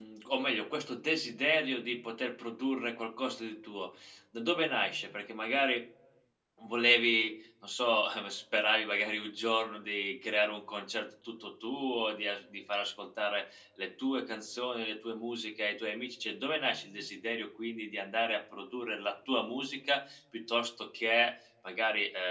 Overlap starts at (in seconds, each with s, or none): none